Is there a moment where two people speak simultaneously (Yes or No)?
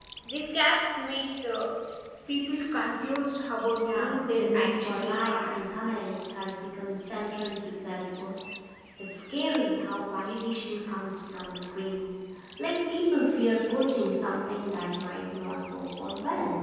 Yes